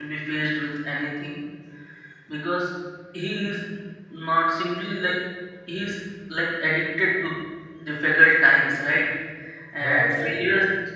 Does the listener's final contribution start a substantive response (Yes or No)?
No